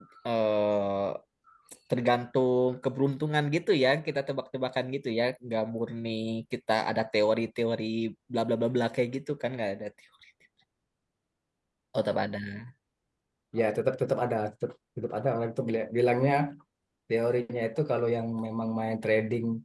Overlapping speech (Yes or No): No